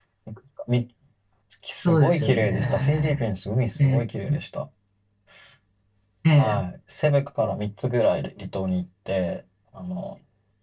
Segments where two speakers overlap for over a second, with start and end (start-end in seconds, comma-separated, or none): 1.9-3.2